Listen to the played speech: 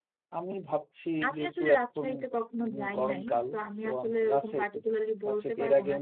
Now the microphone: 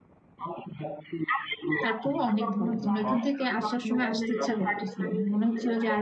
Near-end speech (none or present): present